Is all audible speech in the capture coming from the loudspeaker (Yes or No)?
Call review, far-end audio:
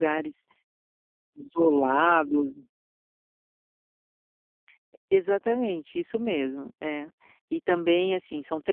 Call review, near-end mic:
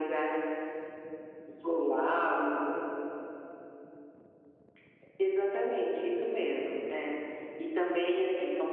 Yes